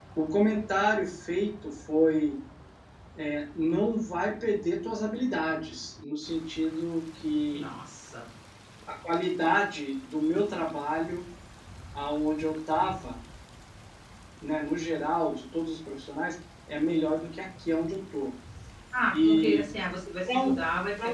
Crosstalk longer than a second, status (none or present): none